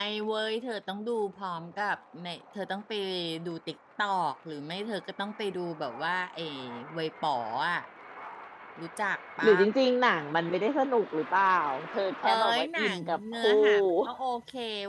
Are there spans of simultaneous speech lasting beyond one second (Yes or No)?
Yes